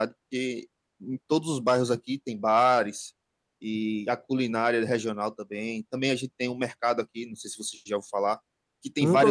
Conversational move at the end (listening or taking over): listening